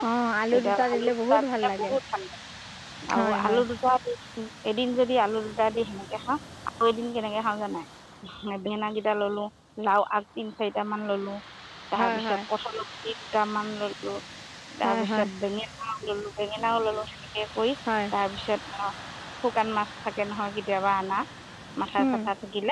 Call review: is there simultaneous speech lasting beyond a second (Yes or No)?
Yes